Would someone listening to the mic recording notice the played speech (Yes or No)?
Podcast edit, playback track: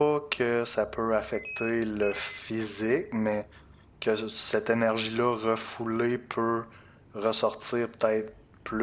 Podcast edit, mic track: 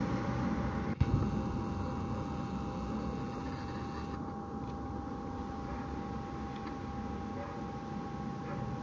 No